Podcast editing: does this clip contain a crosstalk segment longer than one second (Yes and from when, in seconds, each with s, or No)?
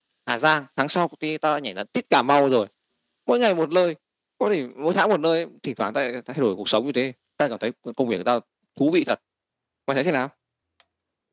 No